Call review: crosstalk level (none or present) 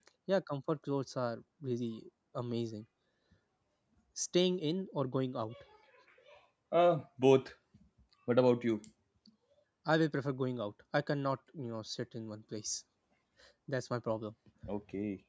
none